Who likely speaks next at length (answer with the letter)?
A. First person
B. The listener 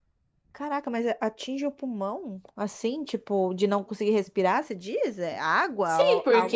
B